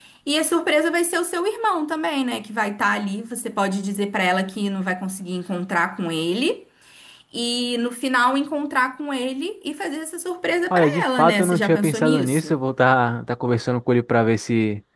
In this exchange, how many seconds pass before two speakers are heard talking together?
10.7 s

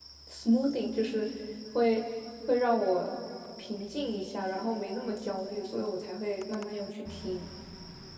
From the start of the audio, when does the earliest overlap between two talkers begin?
none

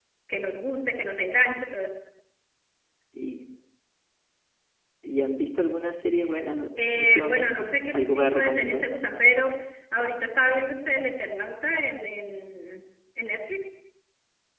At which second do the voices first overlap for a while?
6.8 s

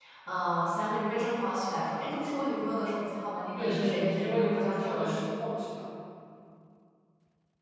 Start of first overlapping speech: 3.5 s

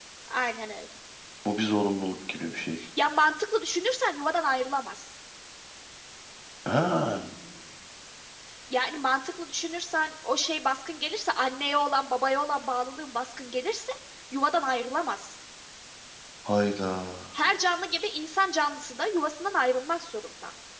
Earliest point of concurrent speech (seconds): none

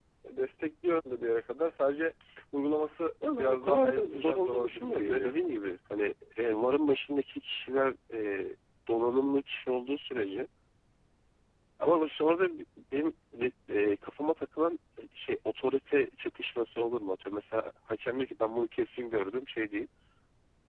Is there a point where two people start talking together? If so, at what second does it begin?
3.4 s

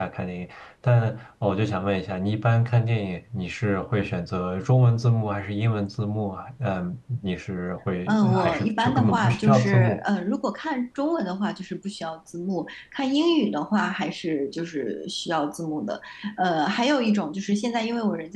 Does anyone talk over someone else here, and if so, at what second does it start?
8.1 s

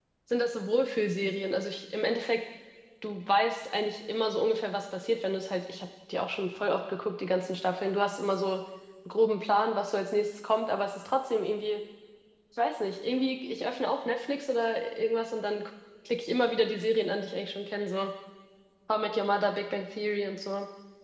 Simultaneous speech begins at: none

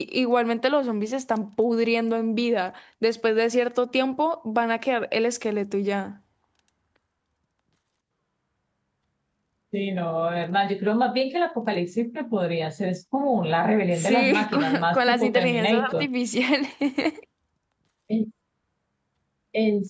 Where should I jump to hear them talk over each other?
13.9 s

